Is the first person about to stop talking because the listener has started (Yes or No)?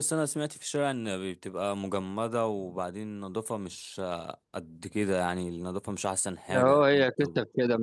Yes